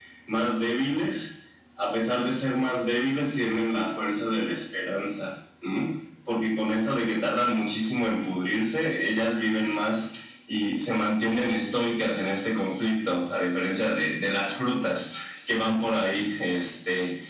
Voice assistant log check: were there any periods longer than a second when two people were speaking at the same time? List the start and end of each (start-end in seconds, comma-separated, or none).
none